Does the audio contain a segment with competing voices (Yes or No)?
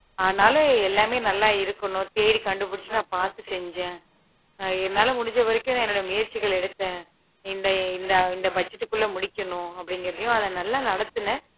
No